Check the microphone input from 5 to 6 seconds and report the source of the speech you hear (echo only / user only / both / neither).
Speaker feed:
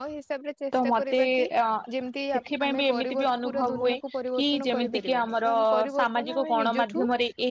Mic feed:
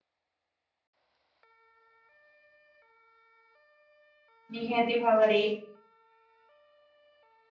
user only